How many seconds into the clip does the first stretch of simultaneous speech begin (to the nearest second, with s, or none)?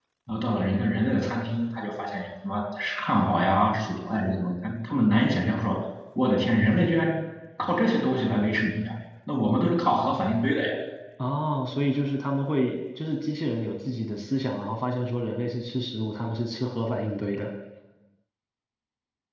none